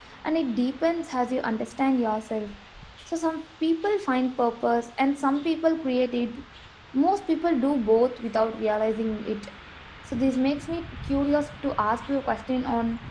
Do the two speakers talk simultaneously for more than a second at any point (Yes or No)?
No